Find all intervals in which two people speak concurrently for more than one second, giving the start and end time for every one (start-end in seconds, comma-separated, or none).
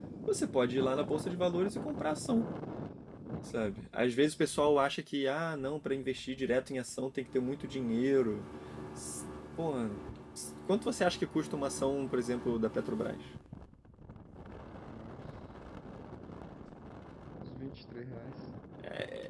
none